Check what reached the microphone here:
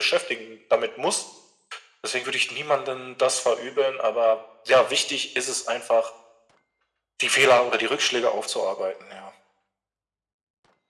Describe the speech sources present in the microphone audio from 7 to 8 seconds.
echo only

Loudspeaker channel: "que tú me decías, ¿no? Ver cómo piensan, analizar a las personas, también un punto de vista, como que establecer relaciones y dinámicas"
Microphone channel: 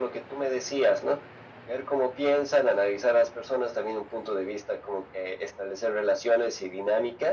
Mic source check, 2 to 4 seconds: echo only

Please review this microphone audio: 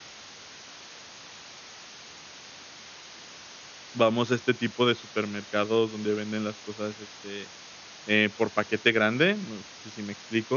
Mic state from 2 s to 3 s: neither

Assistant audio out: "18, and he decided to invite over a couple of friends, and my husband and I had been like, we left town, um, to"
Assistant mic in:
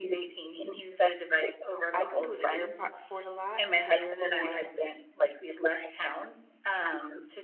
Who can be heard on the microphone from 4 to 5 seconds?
both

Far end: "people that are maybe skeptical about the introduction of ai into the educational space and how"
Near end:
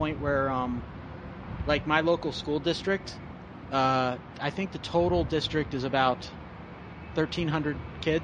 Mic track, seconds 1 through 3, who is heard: user only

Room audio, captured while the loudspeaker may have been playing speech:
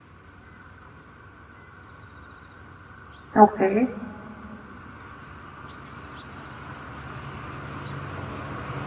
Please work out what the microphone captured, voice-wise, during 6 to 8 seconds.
neither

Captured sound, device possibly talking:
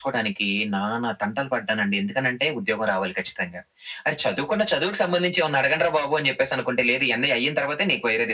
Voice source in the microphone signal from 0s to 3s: echo only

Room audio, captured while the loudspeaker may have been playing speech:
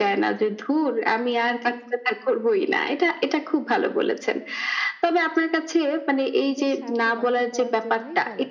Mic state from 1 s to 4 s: echo only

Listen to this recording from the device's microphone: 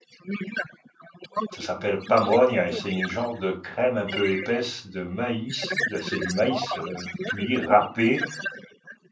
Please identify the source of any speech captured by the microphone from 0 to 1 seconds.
echo only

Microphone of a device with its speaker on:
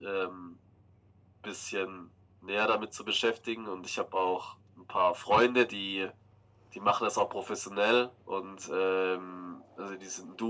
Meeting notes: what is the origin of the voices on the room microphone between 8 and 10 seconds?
echo only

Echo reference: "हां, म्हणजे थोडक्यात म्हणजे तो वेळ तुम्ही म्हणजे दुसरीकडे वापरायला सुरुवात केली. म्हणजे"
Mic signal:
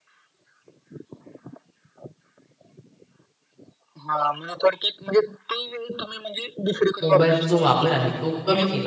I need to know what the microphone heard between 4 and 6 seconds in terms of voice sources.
echo only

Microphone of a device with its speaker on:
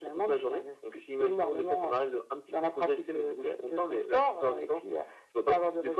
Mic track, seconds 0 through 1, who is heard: echo only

